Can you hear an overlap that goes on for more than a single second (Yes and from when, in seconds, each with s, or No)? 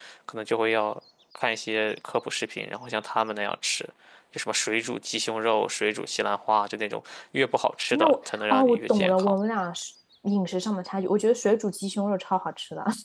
Yes, from 7.9 s